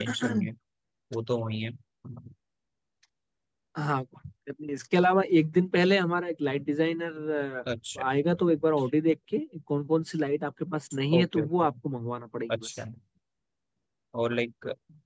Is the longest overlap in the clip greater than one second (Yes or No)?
No